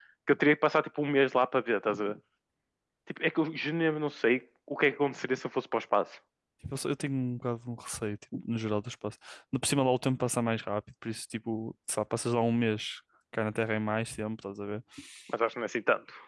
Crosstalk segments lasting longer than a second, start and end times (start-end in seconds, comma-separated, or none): none